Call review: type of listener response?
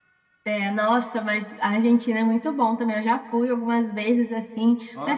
listening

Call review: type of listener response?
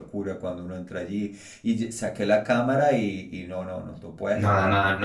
taking over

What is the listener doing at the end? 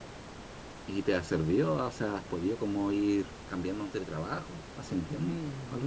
taking over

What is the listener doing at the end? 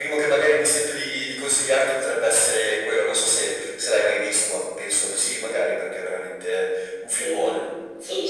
taking over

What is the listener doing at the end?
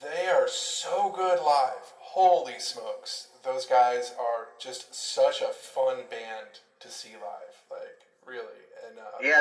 taking over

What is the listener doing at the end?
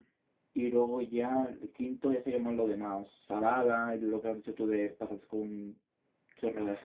listening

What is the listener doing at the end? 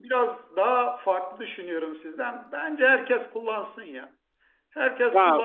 listening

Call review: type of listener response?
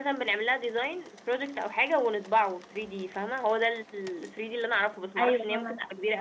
taking over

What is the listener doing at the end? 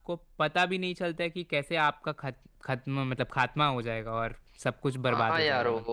taking over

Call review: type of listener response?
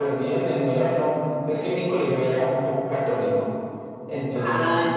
listening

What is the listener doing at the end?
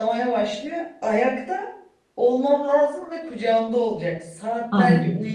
listening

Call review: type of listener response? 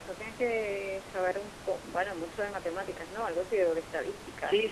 taking over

